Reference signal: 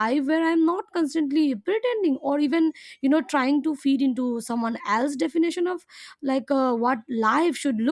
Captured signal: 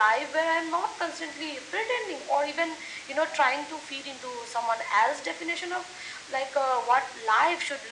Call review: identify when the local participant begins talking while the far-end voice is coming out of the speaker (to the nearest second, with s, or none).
none